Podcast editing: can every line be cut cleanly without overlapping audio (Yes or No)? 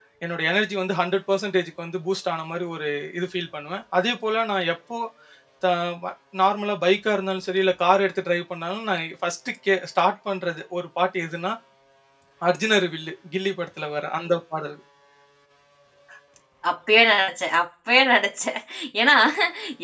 Yes